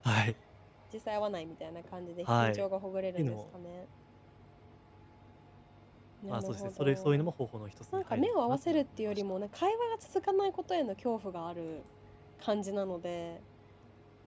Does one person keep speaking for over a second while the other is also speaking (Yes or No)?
Yes